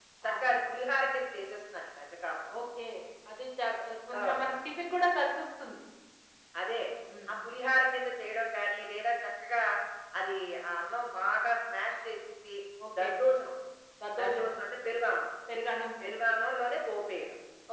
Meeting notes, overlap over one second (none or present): none